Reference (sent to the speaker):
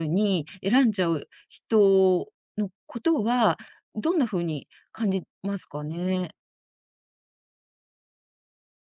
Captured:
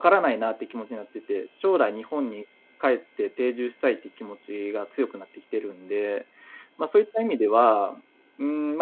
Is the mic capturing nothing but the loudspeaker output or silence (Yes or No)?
No